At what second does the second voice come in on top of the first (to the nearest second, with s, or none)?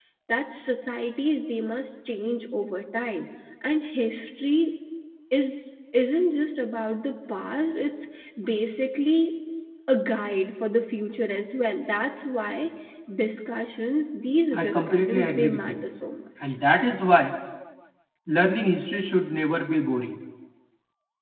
15 s